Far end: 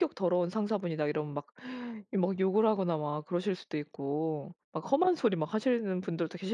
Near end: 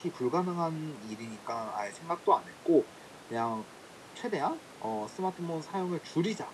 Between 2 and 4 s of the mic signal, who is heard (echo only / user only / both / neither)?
user only